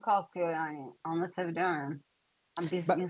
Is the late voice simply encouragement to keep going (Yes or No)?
Yes